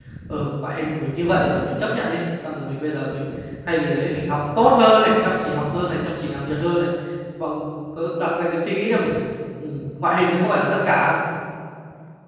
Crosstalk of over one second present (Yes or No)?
No